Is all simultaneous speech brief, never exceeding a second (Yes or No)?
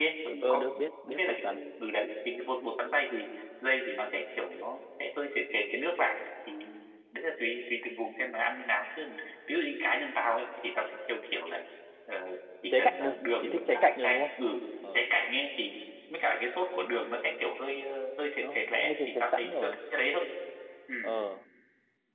No